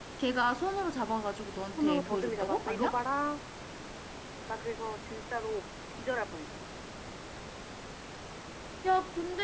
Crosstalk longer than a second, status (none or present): present